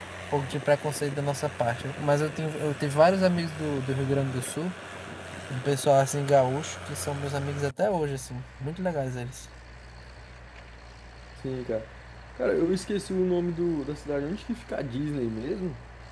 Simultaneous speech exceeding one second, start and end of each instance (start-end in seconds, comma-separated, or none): none